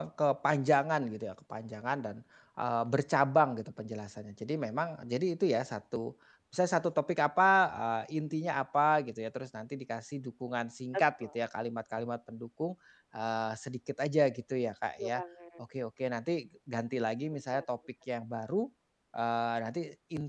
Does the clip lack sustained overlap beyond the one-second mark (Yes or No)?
Yes